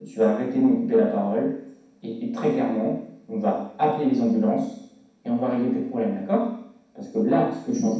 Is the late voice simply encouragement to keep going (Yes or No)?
Yes